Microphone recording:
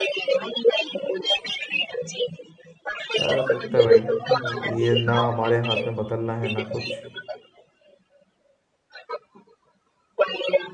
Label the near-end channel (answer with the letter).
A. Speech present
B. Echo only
A